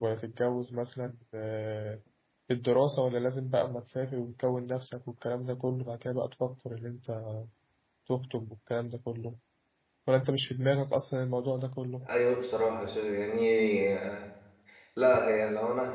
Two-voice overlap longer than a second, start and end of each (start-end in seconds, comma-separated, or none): none